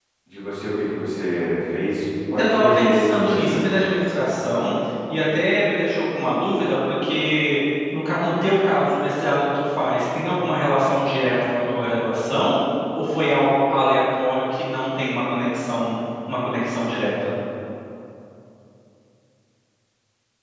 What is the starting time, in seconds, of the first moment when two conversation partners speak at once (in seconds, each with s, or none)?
2.3 s